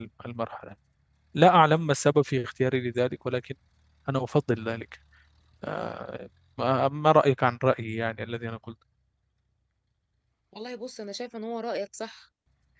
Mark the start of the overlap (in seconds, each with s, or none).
none